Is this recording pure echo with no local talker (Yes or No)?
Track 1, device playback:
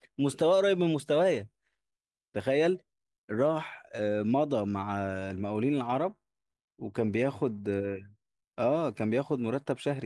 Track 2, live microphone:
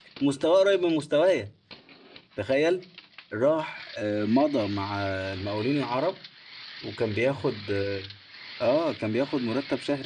Yes